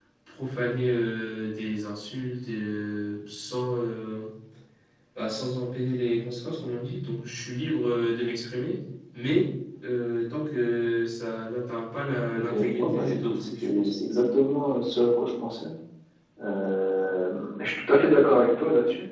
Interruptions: present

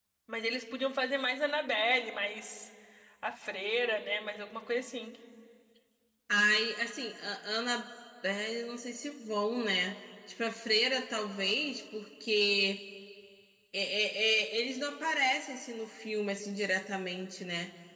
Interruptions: none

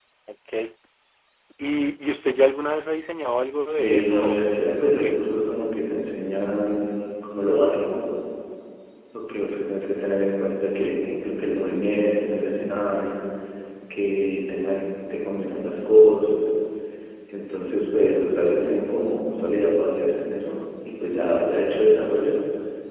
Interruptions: present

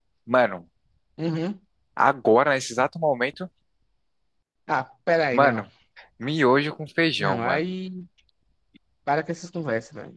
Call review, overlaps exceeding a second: none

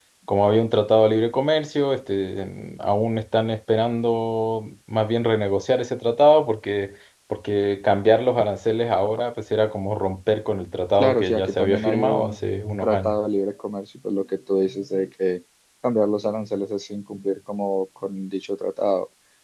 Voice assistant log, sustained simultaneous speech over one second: present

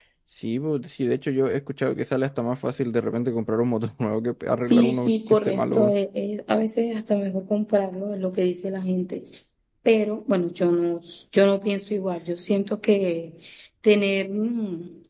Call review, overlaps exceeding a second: present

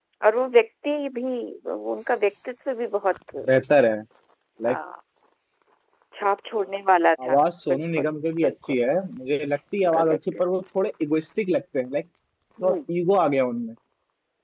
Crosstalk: present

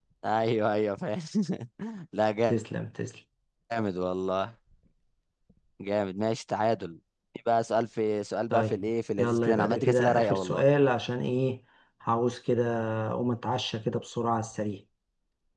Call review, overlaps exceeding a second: present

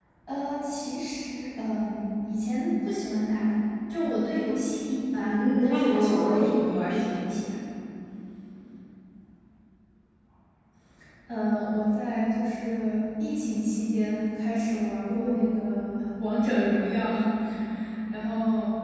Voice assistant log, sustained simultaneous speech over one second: present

